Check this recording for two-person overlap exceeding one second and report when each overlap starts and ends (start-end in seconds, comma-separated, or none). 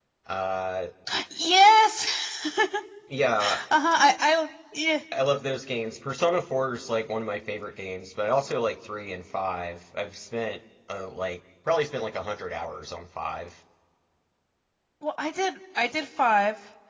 none